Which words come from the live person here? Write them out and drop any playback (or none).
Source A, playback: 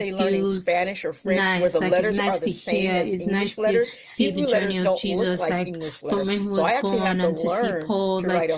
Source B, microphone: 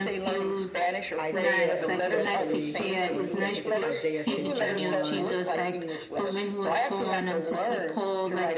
Isaiah, especially, I want to say, I think it's Isaiah 51,